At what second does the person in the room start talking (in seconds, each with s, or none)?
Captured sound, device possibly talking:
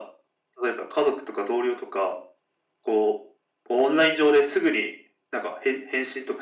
none